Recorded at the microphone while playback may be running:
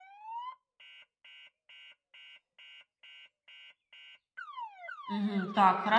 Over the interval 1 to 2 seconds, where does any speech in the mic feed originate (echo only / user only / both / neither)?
neither